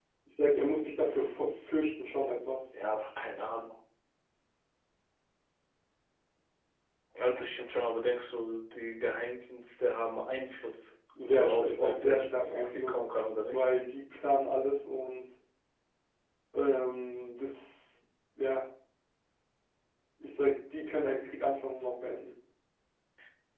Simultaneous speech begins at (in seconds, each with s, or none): 11.4 s